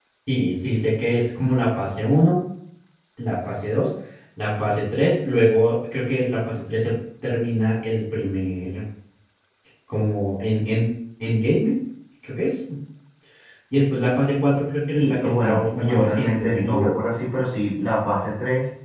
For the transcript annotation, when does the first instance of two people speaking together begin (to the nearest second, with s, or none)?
15 s